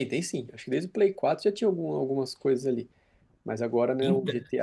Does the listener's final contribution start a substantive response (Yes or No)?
No